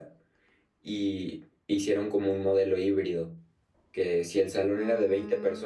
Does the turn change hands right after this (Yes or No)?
No